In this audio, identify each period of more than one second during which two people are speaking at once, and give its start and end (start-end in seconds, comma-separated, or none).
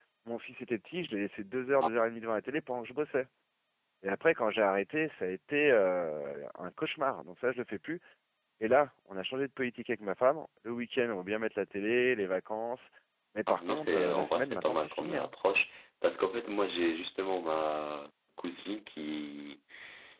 13.5-15.3